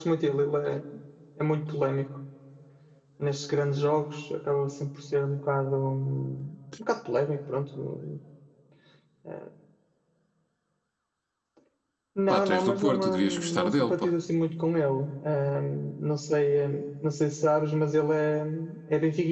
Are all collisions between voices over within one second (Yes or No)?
No